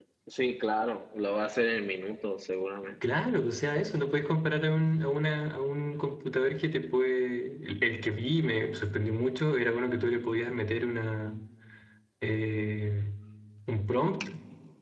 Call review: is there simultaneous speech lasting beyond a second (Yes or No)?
No